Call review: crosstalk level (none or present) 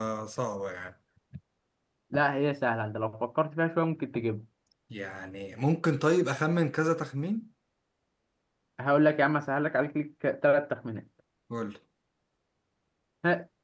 none